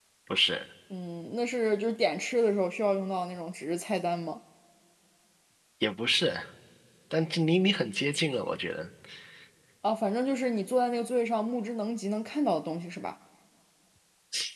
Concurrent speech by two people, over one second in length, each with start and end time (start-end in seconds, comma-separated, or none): none